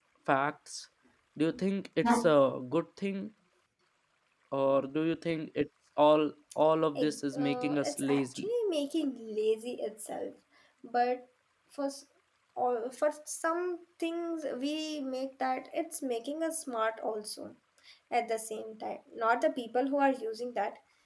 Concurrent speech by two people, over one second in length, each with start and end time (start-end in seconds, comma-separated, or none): 7.0-8.5